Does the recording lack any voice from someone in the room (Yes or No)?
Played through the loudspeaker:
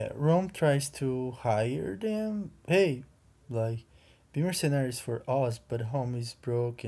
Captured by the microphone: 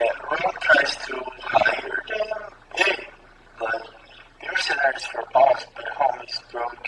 Yes